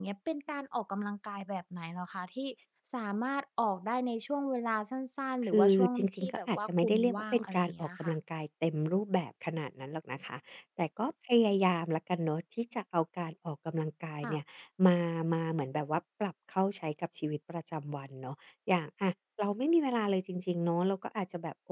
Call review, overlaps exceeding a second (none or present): present